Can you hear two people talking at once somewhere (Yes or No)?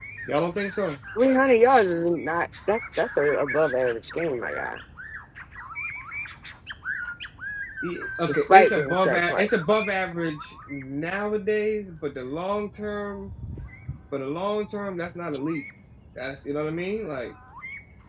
Yes